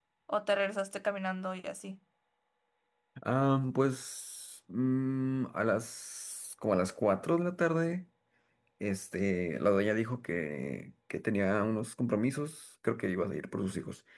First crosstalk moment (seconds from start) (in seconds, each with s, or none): none